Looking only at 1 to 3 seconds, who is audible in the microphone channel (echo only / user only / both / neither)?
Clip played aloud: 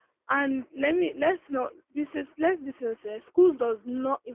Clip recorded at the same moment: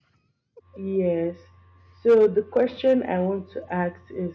user only